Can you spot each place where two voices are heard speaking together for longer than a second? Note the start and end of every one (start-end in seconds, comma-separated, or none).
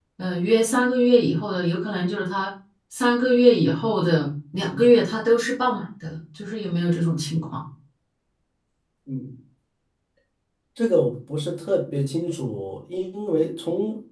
none